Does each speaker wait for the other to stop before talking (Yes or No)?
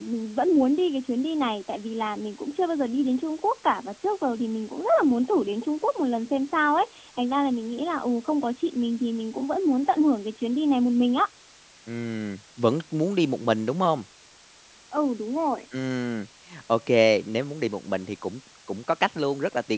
Yes